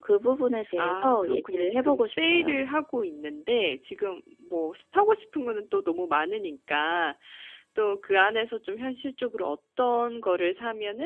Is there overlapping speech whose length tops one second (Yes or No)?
Yes